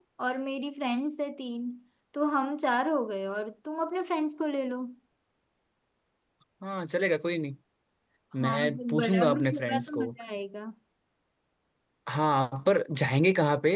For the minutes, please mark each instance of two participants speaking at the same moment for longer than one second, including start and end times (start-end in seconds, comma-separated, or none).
8.4-10.1